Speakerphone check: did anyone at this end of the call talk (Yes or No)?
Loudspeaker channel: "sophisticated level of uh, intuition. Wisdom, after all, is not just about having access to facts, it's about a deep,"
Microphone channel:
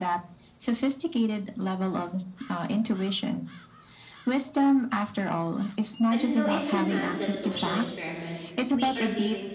Yes